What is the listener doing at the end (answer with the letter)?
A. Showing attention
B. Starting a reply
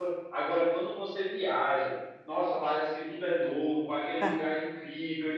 A